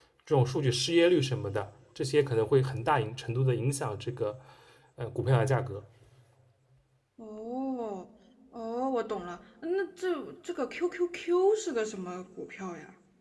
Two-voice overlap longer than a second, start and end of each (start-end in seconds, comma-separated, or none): none